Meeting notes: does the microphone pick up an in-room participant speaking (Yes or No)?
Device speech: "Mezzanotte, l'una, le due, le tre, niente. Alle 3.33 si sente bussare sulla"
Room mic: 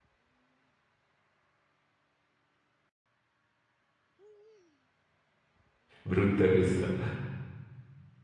Yes